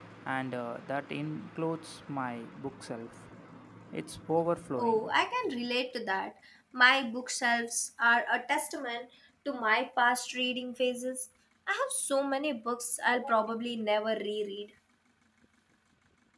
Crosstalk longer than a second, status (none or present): none